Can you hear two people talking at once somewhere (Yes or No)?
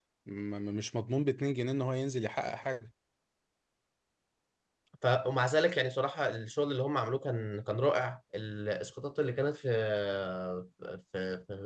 No